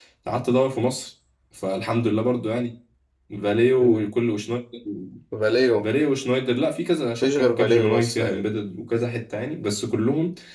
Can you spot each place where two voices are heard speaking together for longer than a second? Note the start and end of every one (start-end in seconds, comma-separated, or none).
7.2-8.4